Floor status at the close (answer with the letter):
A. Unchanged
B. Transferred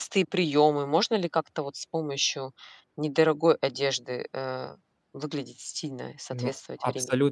B